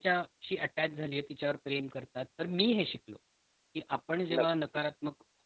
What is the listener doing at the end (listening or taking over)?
listening